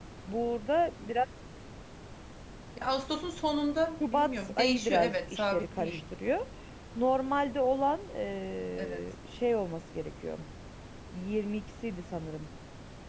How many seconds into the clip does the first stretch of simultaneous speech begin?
4.1 s

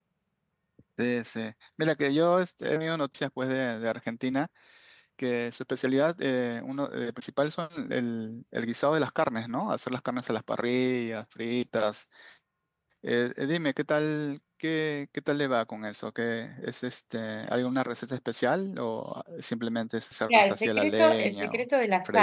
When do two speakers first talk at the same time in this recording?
20.3 s

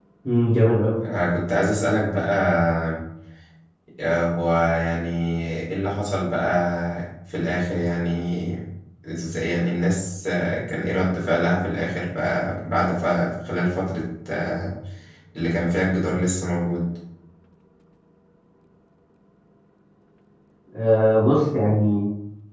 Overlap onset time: none

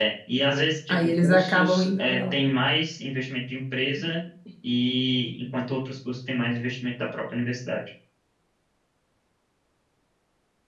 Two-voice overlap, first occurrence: 0.9 s

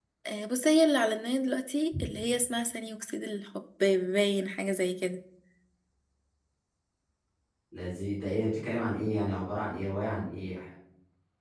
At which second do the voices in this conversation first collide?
none

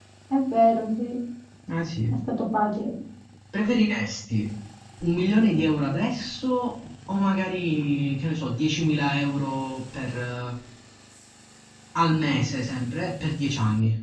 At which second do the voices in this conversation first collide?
none

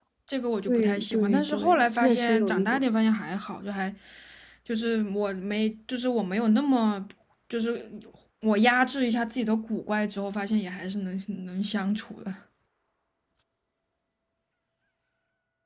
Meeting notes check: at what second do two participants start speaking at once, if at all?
0.7 s

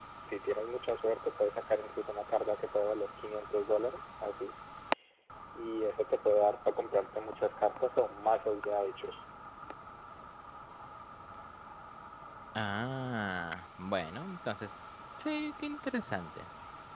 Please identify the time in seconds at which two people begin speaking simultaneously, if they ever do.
none

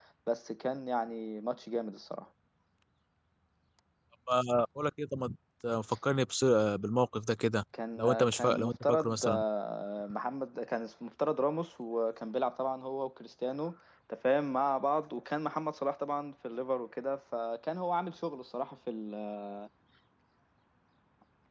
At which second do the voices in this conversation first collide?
7.7 s

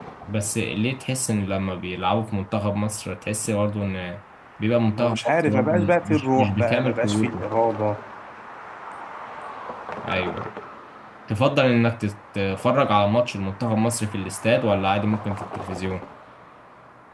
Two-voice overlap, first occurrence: 4.9 s

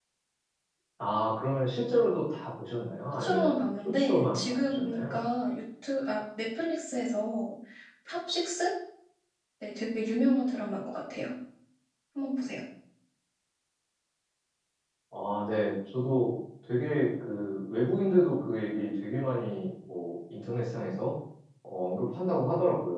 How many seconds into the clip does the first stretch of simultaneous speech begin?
3.1 s

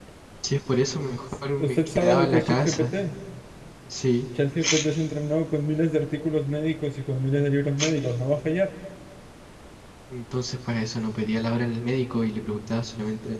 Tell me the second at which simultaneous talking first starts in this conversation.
1.6 s

